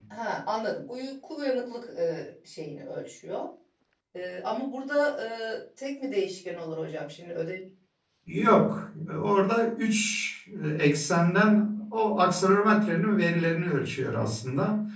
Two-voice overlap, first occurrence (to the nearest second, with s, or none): none